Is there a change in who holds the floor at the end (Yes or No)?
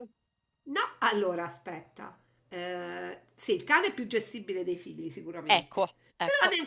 No